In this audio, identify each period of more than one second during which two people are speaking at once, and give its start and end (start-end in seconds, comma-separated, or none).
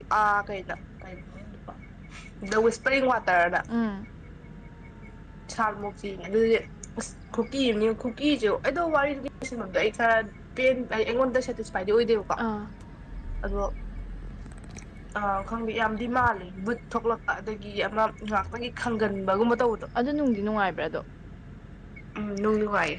none